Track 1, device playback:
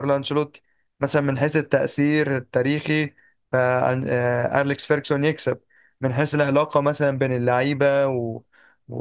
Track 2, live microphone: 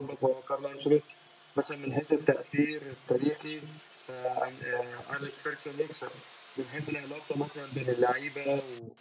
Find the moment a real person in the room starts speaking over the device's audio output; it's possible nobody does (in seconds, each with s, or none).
none